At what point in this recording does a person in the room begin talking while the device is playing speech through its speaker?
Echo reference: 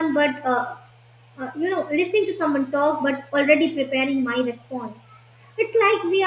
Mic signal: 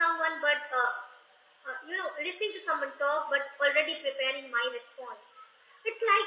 none

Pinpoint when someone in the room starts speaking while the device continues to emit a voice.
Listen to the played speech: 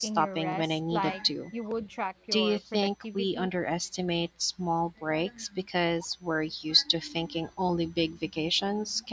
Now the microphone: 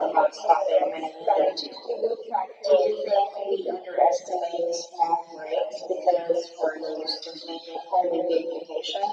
none

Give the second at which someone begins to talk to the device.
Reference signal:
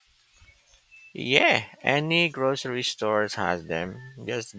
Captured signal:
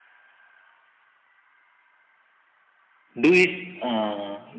3.2 s

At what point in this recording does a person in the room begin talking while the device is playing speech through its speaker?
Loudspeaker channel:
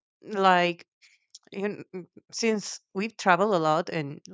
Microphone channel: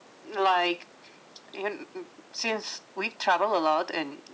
none

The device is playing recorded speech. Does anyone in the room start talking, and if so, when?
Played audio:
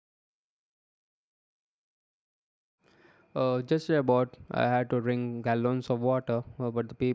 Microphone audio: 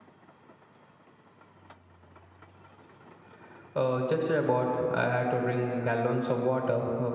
none

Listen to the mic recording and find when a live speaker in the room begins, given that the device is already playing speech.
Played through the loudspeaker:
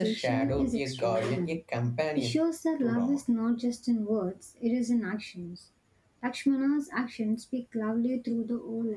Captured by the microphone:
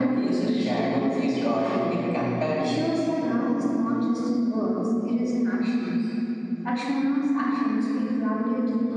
none

